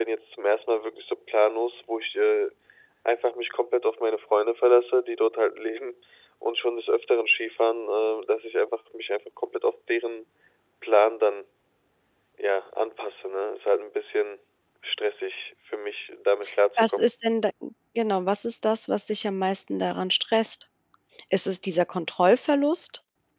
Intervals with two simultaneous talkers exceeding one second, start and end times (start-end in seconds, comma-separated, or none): none